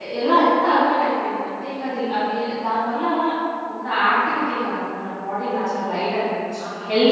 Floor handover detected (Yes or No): No